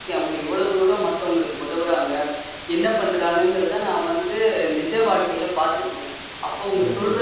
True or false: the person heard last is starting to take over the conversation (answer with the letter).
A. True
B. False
B